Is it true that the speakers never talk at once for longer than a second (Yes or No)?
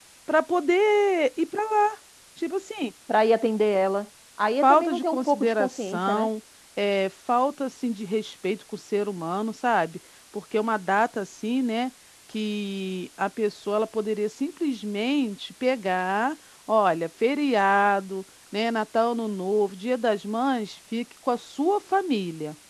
No